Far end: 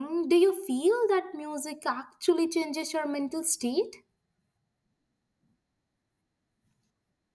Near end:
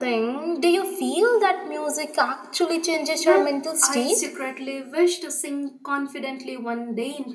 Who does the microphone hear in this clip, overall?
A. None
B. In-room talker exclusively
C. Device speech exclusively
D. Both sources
D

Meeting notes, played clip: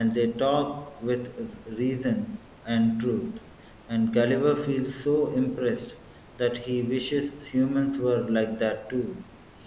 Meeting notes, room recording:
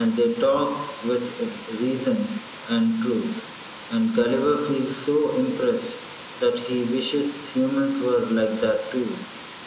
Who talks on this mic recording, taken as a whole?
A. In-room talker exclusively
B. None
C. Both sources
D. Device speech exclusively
D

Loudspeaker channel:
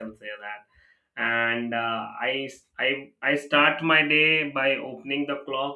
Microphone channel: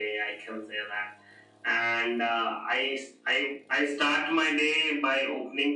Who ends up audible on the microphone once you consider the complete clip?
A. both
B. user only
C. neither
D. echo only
D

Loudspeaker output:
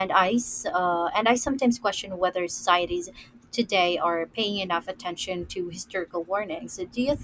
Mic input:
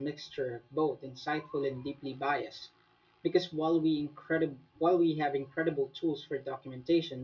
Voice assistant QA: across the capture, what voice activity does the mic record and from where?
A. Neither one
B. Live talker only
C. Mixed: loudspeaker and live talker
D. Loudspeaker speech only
B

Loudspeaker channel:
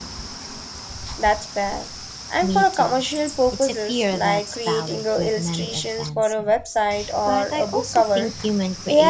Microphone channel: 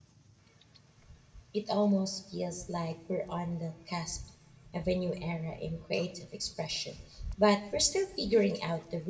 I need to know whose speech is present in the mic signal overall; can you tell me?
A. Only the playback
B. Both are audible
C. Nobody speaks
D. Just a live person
D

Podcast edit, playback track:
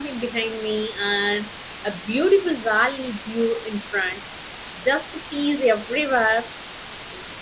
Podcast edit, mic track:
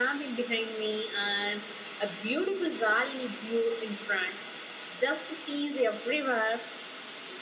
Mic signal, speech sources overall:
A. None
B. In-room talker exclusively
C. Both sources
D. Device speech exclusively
D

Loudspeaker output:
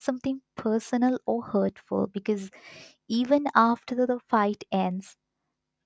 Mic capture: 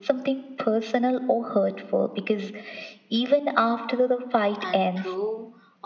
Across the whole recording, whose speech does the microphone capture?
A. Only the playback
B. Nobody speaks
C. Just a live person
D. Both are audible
D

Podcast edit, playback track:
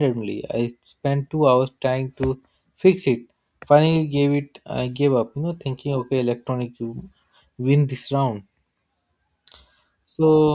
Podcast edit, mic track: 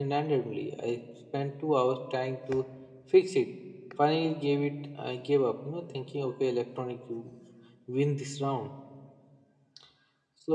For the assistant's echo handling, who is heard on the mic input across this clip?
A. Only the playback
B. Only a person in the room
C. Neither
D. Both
A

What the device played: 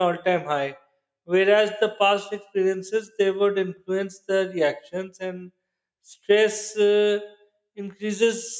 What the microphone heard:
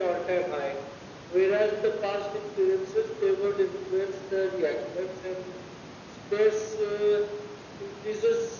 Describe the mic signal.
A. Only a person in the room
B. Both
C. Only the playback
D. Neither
C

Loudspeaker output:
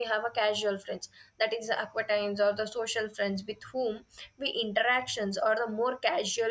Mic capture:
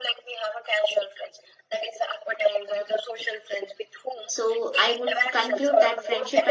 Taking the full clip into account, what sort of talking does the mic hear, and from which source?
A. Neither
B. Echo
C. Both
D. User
C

